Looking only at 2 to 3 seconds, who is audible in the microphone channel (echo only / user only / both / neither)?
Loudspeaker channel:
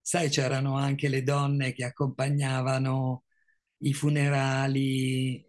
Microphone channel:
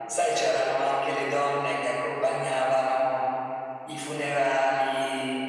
echo only